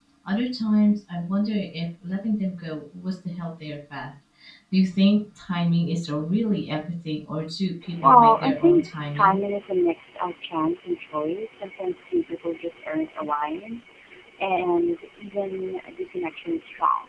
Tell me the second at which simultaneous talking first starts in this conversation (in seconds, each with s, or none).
7.8 s